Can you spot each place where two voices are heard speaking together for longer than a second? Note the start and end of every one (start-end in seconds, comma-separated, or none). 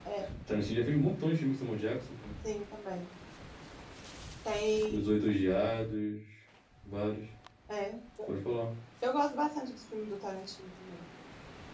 none